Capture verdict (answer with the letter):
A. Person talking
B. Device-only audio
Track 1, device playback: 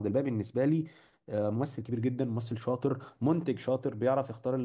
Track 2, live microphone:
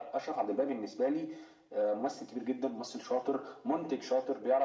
B